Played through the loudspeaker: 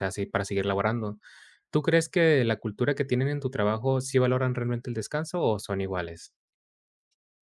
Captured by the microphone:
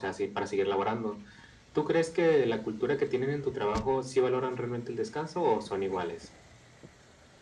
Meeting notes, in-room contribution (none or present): none